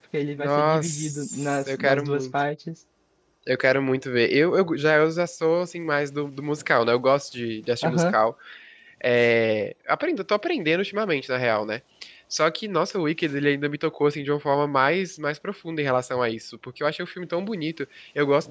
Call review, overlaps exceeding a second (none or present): present